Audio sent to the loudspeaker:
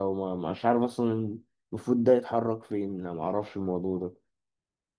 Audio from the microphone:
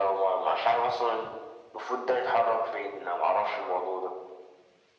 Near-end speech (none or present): none